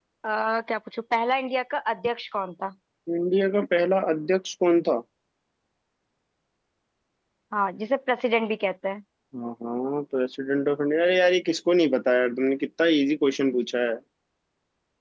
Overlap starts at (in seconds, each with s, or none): none